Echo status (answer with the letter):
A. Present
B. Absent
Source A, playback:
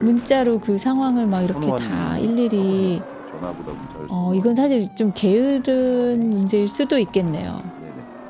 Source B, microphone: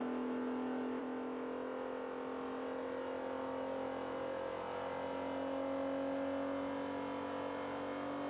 B